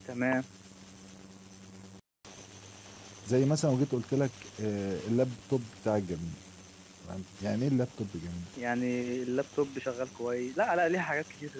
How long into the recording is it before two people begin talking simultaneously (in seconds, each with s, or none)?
none